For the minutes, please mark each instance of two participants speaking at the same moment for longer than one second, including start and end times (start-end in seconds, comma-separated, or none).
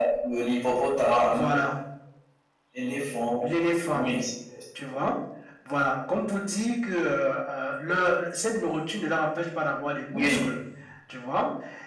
none